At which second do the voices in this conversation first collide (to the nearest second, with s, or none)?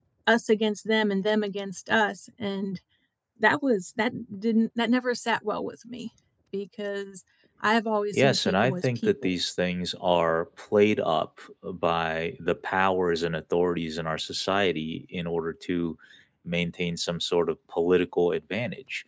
8 s